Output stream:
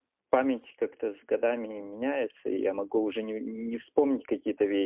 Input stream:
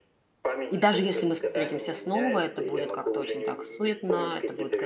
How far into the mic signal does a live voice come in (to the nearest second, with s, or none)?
1 s